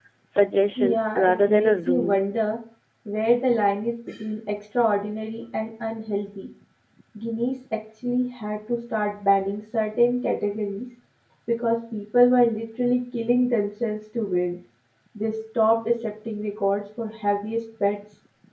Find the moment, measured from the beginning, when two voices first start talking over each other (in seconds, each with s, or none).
0.8 s